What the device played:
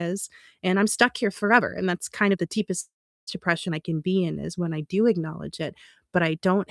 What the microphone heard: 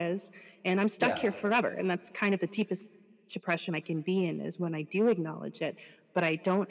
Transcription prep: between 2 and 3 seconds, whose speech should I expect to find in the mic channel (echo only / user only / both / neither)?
echo only